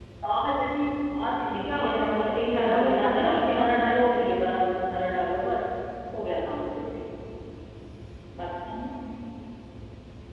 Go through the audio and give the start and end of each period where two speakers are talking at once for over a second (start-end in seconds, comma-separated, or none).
1.4-3.7